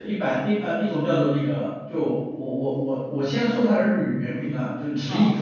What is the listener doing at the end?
listening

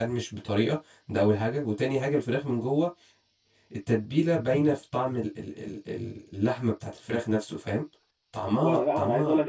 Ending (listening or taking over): taking over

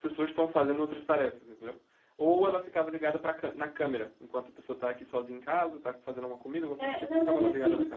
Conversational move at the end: taking over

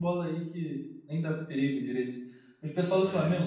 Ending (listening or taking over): listening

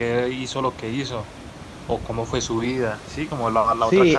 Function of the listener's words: taking over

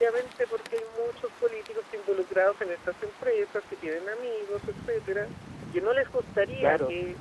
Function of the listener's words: listening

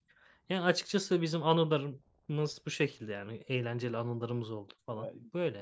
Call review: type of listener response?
taking over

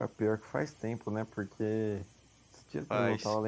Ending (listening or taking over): listening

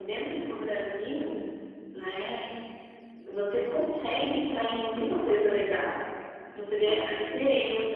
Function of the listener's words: listening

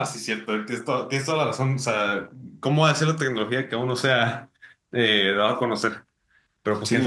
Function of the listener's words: taking over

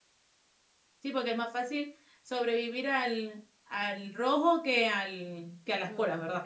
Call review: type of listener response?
taking over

